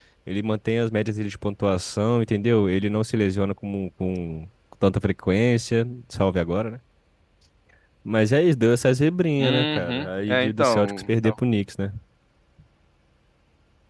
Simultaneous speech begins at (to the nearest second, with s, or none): 9 s